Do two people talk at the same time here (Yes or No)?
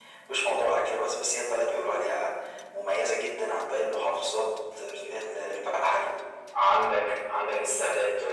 No